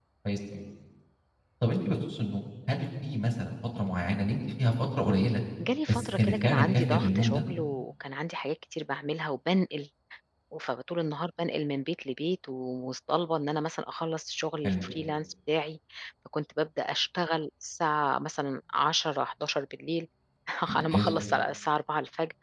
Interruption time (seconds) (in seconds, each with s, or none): 5.9 s